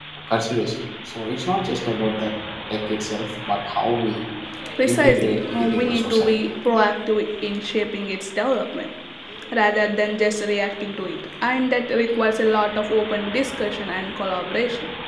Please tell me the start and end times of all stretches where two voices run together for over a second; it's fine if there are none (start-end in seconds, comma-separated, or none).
4.8-6.3